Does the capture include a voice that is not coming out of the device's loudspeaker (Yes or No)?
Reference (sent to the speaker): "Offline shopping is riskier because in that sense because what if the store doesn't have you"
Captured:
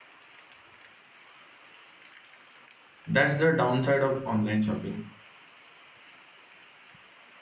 Yes